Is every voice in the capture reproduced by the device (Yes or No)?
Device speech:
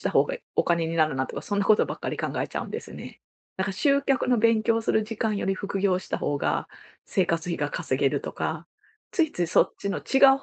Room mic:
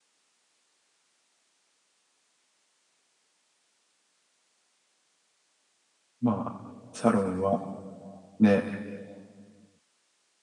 No